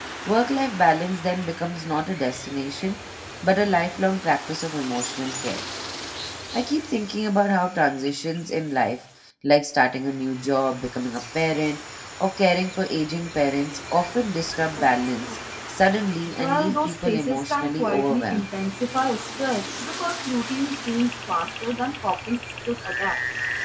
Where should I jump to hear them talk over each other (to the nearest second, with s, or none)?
16 s